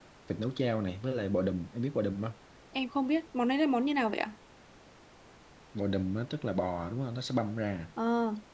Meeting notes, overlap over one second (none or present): none